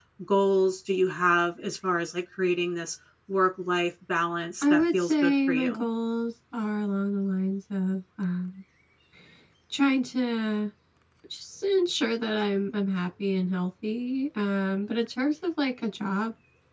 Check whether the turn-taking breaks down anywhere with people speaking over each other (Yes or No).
Yes